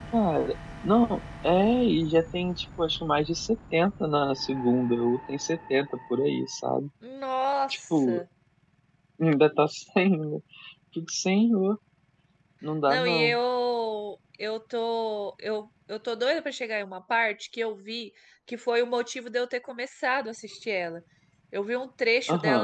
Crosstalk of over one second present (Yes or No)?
No